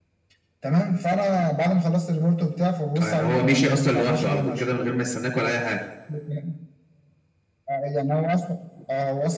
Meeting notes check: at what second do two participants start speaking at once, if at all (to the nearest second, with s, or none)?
3 s